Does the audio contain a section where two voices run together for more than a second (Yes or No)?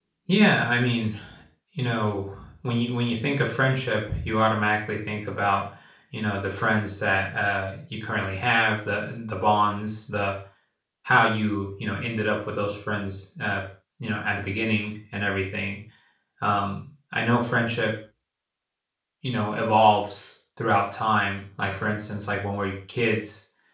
No